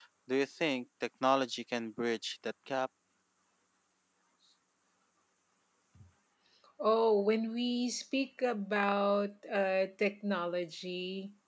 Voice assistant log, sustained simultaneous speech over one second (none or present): none